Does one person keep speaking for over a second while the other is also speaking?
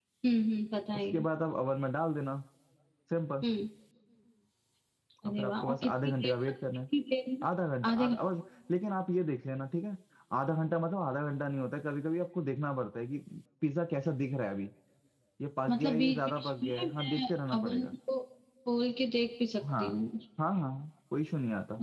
Yes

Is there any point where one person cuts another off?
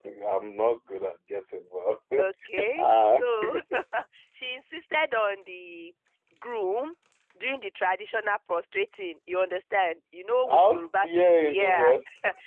Yes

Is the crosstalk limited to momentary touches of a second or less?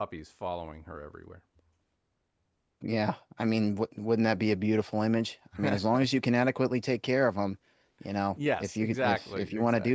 No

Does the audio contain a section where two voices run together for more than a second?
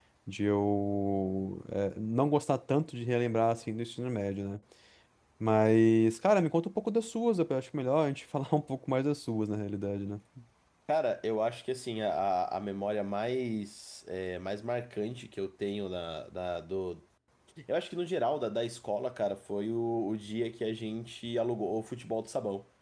No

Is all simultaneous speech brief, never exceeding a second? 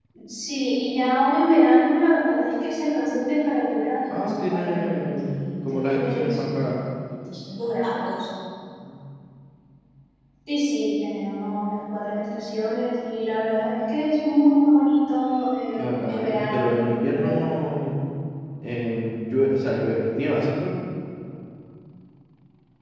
No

